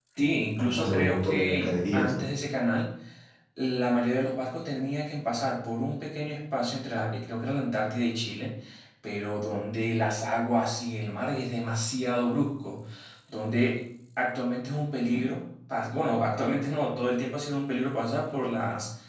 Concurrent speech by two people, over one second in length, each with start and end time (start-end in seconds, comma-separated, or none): 0.6-2.3